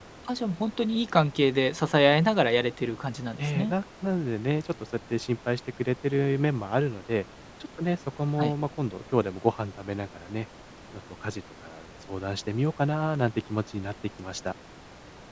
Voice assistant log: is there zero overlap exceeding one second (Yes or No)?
Yes